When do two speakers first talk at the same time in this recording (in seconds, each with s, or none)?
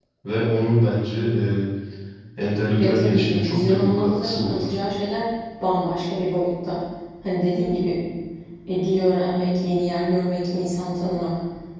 2.8 s